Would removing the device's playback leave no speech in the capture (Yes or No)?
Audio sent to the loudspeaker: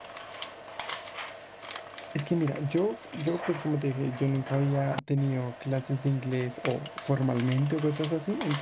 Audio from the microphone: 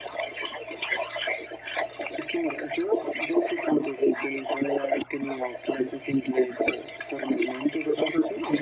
Yes